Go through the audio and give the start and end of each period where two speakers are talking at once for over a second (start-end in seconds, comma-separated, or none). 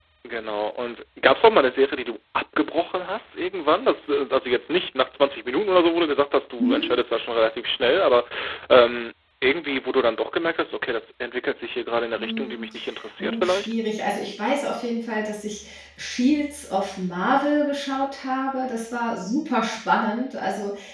none